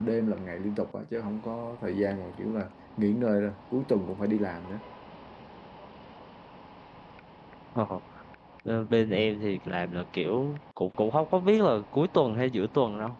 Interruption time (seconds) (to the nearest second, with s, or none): none